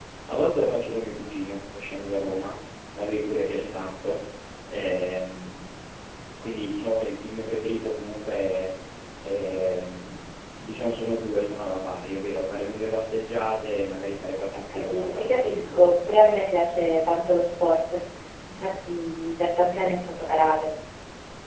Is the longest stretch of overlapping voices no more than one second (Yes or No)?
No